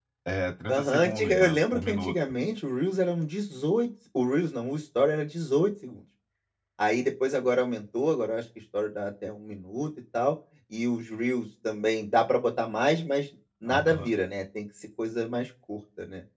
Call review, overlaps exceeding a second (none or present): present